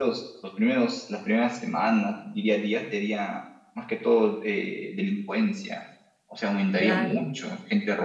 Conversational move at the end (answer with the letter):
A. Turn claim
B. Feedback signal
B